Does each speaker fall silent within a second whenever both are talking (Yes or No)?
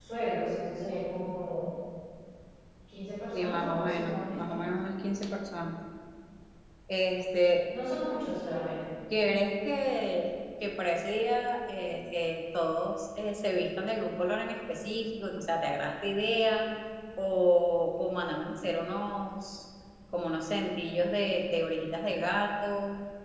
No